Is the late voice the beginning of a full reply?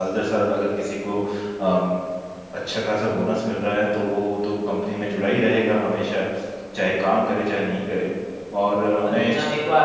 Yes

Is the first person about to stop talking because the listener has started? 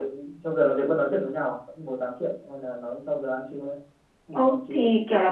Yes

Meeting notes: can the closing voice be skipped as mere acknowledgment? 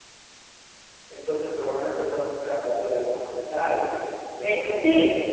No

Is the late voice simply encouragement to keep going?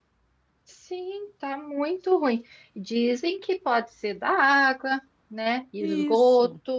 Yes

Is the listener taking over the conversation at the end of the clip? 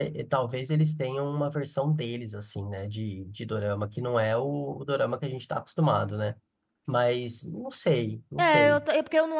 Yes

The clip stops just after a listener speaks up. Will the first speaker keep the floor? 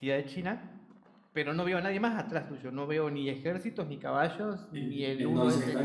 No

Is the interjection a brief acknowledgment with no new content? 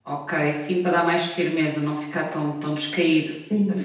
No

